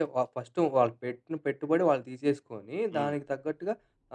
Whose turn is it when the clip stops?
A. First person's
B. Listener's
A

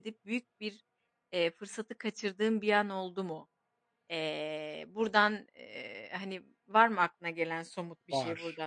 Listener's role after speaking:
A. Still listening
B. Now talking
B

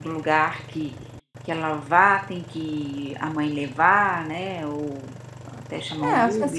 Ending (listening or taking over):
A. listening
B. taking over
B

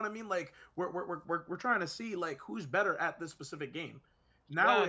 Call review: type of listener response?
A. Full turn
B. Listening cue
A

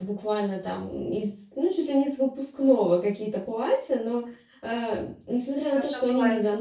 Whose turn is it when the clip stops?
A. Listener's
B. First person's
B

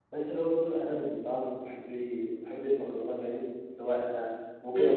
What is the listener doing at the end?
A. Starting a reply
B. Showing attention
B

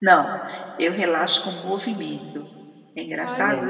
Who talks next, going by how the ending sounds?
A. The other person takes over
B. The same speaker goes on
A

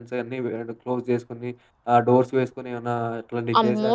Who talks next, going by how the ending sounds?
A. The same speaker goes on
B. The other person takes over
B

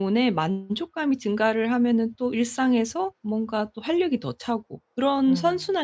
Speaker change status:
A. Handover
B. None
B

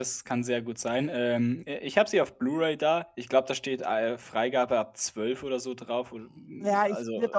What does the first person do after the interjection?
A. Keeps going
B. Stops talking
B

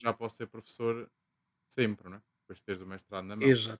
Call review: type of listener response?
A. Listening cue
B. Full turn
B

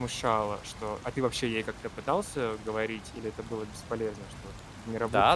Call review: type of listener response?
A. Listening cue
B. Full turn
B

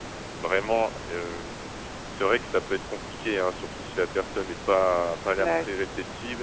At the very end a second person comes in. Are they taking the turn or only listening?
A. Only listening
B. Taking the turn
A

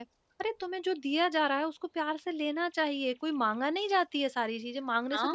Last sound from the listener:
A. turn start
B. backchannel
A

